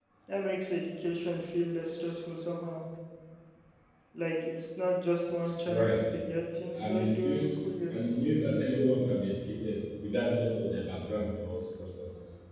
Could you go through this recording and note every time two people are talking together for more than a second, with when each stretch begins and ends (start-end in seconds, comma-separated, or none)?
6.8-8.1